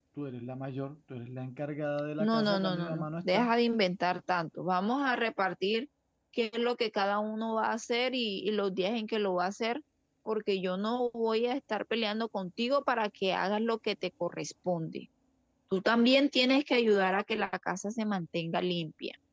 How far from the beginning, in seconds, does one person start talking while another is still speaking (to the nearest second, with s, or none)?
2 s